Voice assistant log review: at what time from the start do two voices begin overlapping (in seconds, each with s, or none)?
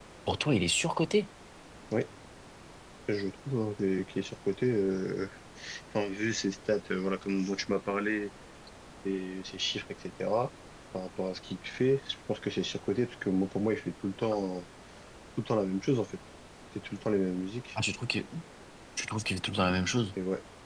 none